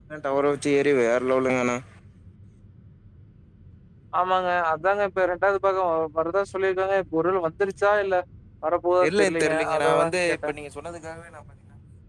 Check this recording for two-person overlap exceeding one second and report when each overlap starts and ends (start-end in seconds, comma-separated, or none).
9.1-10.4